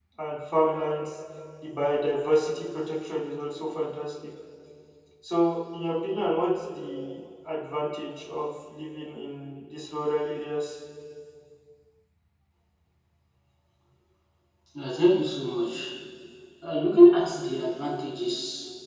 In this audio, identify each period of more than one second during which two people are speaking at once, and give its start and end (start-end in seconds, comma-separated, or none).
none